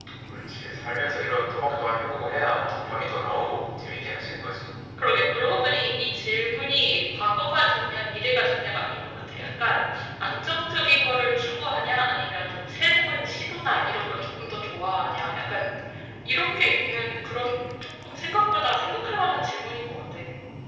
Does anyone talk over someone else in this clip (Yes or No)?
No